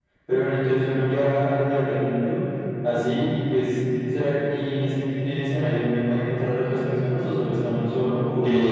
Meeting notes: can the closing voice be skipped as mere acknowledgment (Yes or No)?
No